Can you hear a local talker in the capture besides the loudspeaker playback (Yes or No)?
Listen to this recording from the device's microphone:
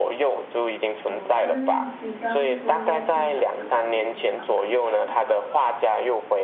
Yes